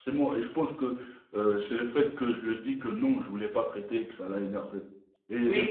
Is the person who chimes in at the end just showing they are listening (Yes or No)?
No